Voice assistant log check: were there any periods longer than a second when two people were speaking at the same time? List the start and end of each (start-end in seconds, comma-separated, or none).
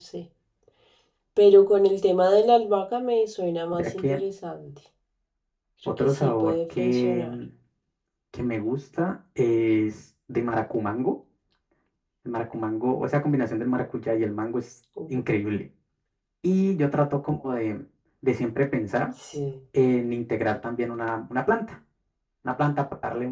6.0-7.4